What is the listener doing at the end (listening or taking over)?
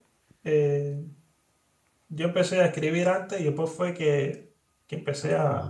listening